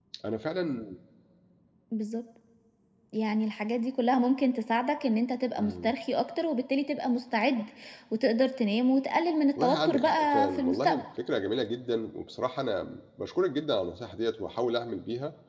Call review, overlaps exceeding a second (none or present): present